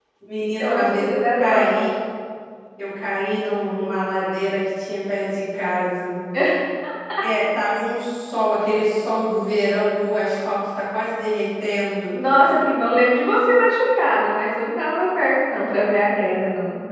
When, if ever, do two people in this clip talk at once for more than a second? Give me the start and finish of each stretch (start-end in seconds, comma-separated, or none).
0.6-1.9